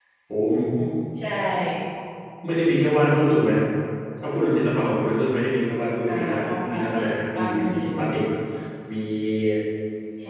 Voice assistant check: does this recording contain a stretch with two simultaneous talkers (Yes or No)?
Yes